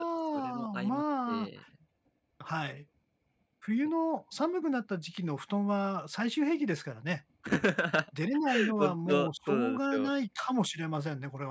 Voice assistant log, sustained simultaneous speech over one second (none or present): present